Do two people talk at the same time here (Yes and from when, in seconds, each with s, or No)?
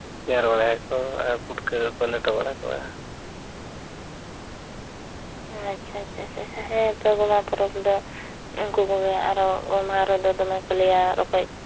No